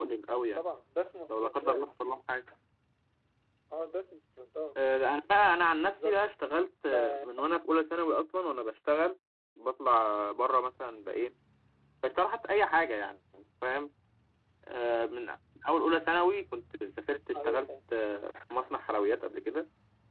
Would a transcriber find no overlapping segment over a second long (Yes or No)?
Yes